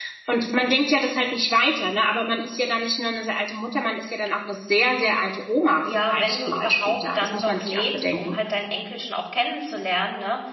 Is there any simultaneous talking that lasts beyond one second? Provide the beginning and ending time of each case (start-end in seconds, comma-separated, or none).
6.1-8.4